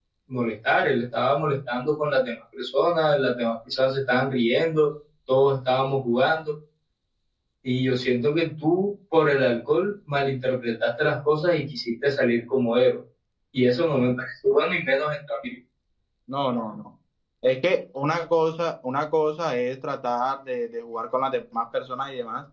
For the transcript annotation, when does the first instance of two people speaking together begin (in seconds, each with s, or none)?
none